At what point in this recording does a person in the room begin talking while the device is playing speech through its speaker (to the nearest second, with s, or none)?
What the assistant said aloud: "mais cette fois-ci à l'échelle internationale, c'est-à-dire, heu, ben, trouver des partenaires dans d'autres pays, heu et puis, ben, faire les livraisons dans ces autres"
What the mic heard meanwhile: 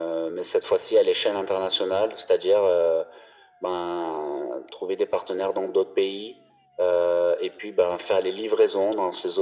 none